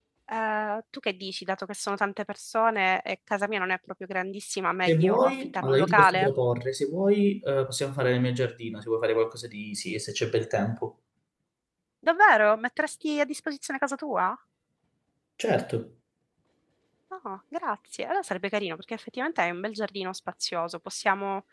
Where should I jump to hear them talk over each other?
4.9 s

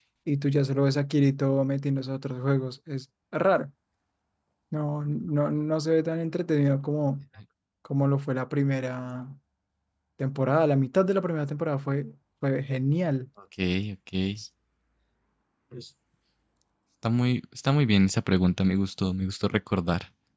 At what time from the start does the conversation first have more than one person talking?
none

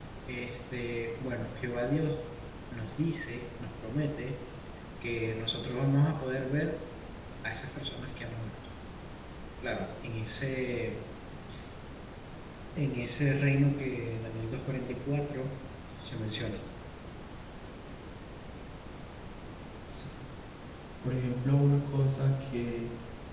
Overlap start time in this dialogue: none

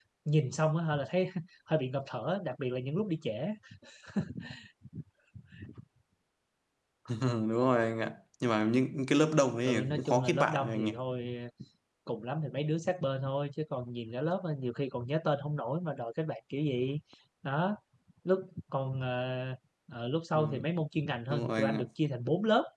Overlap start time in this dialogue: 9.6 s

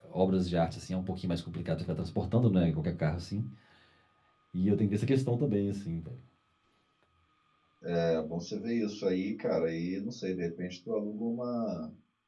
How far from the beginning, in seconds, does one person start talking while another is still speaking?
none

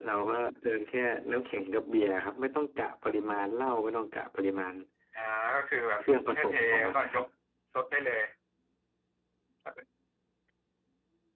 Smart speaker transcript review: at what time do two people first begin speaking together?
6.0 s

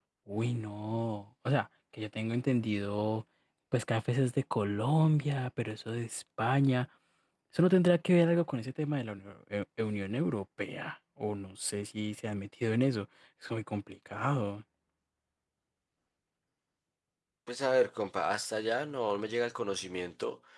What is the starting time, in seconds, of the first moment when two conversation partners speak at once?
none

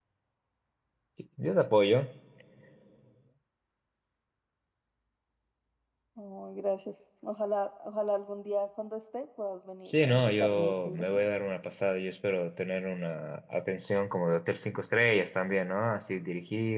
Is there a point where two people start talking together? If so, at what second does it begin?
9.8 s

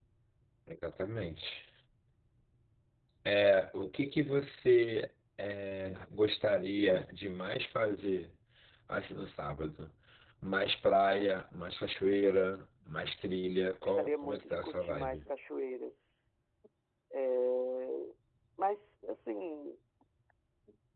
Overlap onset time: 13.8 s

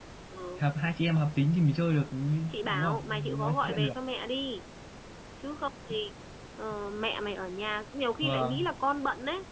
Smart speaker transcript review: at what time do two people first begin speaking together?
2.6 s

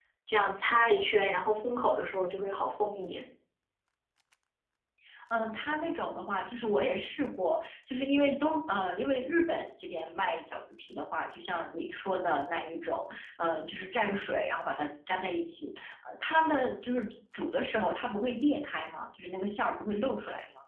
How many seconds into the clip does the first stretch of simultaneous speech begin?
none

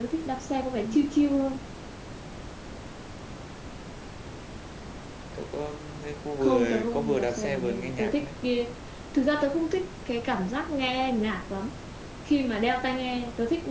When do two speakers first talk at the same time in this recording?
6.4 s

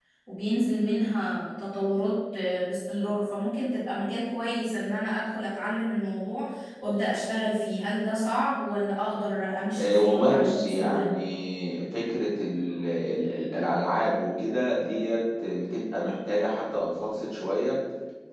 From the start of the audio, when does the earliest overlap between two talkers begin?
9.8 s

